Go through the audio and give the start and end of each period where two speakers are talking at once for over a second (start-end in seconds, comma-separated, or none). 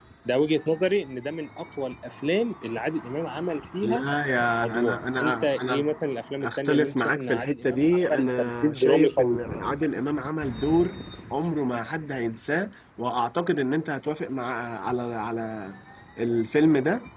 4.6-5.9, 6.4-9.4